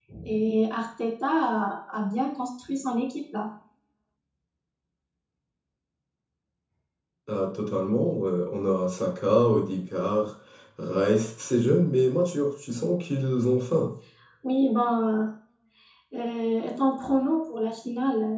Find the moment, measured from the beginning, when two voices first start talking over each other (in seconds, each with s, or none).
none